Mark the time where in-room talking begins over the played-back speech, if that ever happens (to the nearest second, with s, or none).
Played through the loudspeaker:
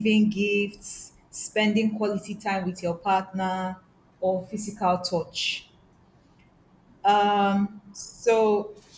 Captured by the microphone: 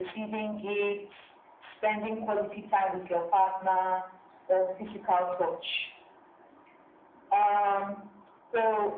none